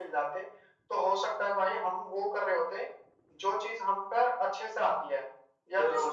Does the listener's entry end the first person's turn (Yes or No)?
Yes